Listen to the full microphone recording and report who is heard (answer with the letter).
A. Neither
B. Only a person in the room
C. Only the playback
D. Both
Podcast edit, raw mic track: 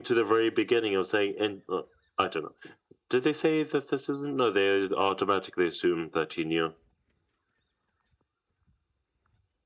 C